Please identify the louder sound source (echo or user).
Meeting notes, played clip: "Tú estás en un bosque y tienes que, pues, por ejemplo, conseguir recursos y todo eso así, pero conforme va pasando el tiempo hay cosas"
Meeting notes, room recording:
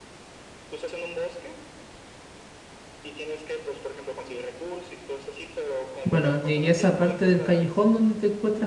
user